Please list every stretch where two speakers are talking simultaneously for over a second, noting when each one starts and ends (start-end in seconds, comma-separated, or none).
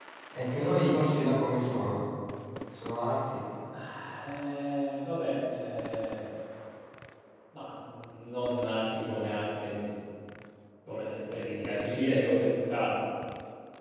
none